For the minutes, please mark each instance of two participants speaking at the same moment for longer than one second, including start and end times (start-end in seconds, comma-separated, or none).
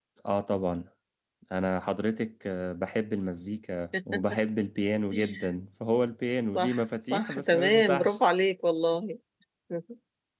6.5-8.2